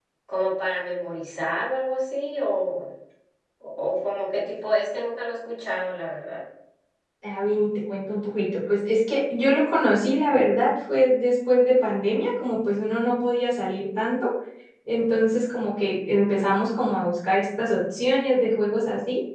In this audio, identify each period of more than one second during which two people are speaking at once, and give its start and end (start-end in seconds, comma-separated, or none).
none